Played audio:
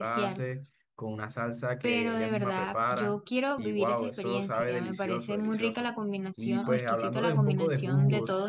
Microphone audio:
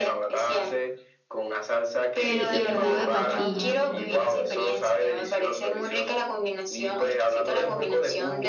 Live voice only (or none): Sí, y el jugo de patilla.